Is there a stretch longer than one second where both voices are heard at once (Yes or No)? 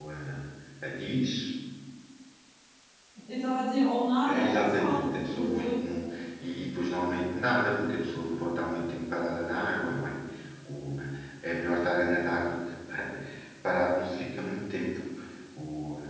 Yes